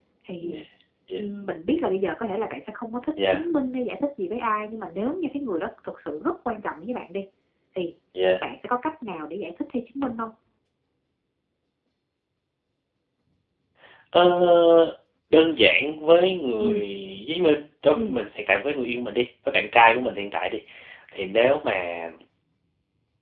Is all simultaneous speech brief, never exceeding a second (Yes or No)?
Yes